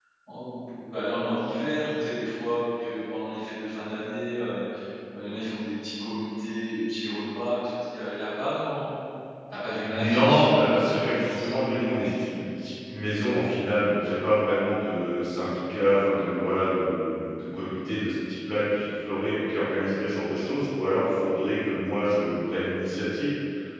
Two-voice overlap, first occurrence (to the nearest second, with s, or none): 10 s